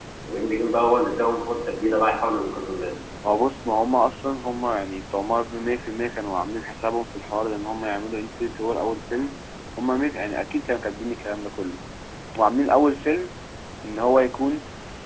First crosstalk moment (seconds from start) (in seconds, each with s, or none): none